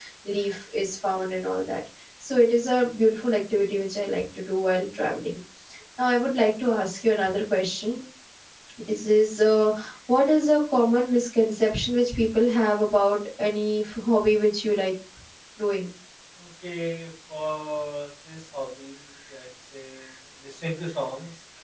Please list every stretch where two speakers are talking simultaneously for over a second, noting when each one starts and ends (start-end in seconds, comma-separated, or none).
none